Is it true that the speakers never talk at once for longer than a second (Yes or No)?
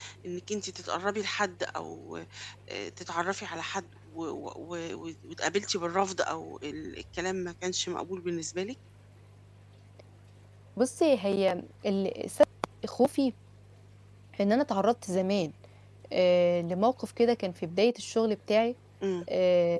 Yes